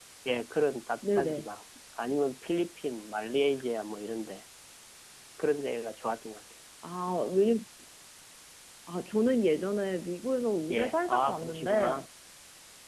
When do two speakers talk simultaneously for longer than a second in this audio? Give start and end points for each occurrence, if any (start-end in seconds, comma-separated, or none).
10.7-12.0